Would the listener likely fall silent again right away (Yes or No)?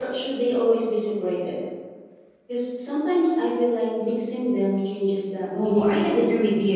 No